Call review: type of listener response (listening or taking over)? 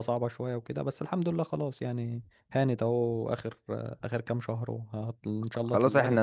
taking over